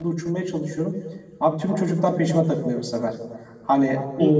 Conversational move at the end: taking over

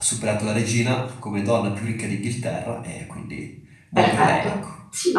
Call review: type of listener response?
taking over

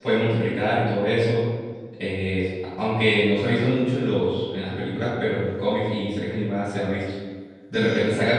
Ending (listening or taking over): listening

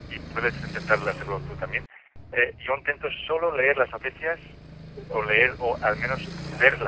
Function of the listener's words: listening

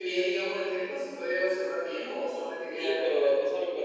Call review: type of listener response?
taking over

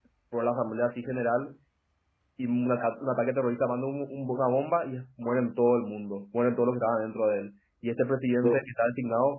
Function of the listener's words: listening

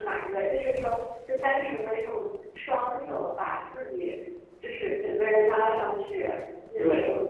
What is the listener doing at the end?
taking over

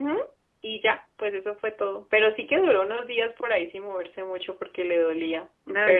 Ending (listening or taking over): taking over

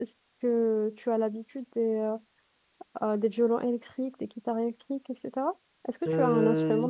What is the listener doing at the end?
taking over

